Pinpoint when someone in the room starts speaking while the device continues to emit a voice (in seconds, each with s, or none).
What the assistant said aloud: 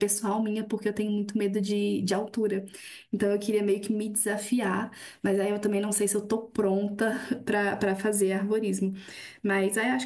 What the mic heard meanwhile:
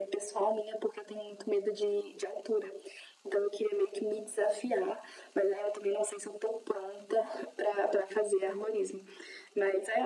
none